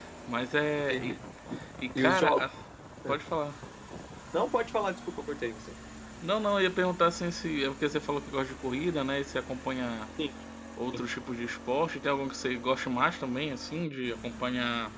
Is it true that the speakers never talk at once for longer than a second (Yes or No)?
Yes